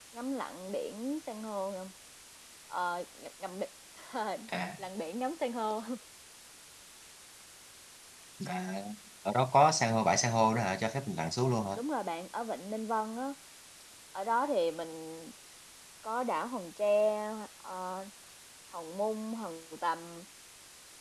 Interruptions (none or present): none